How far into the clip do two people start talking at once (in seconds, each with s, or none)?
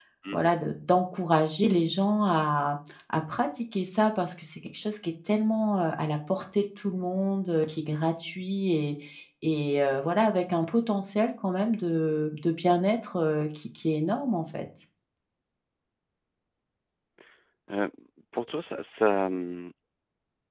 none